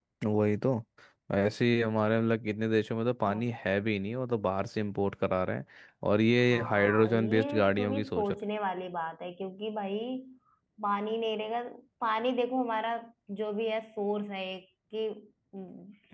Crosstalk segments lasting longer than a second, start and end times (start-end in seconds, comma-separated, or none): 6.5-8.4